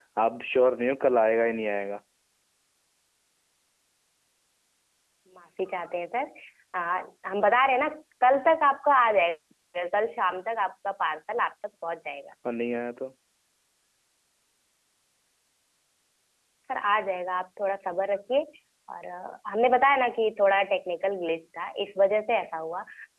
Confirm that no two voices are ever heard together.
Yes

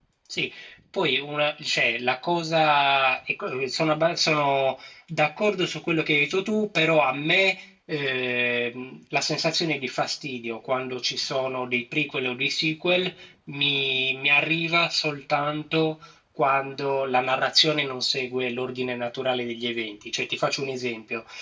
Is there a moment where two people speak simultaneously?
No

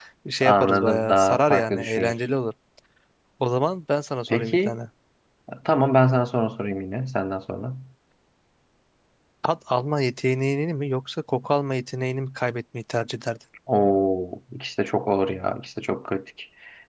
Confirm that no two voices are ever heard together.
No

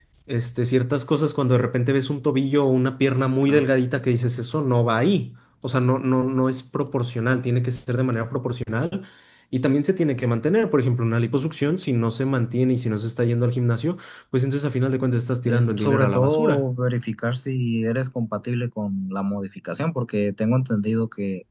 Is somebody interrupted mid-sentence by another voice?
Yes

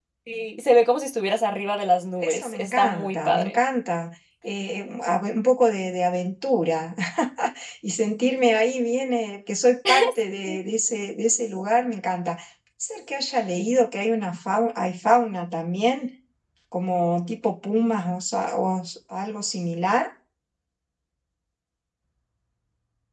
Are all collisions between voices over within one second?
No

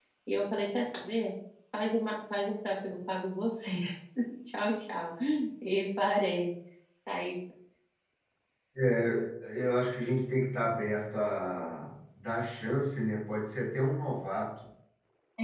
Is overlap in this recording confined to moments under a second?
Yes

